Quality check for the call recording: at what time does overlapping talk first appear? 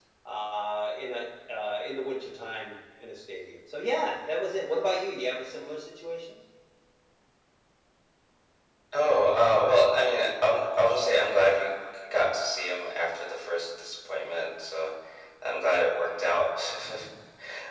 none

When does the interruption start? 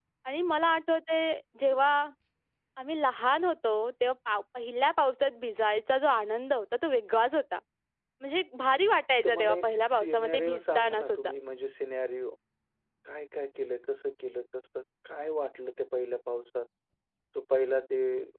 9.2 s

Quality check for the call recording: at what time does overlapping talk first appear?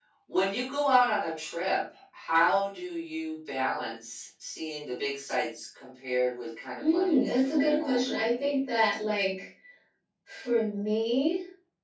6.8 s

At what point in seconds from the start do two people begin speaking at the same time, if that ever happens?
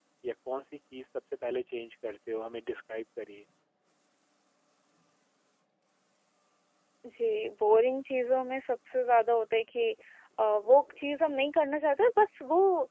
none

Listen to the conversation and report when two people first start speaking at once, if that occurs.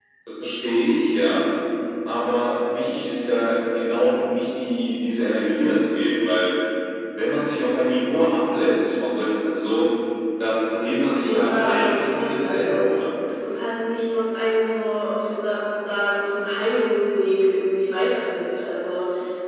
11.1 s

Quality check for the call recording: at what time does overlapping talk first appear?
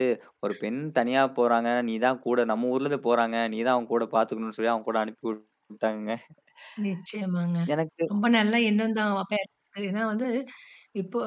none

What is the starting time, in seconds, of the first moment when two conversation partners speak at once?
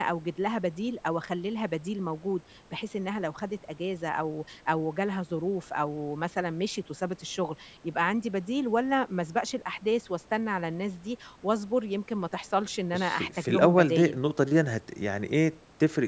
12.9 s

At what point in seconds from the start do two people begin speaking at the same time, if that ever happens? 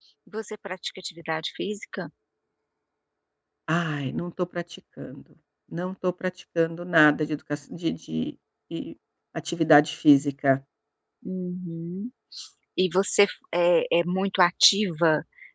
none

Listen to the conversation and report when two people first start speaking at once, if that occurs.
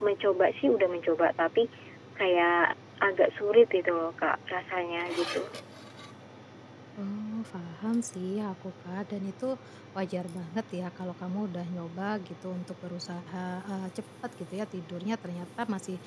none

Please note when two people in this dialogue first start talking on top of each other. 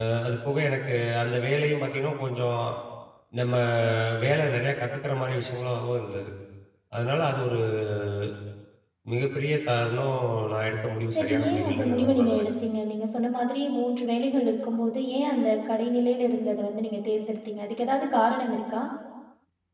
11.1 s

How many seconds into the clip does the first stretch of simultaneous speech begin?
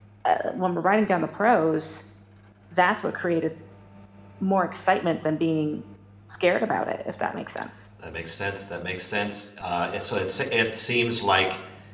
none

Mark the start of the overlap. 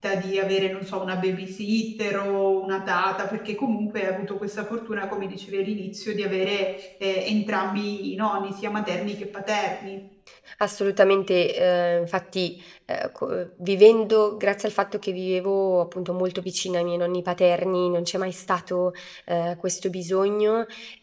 none

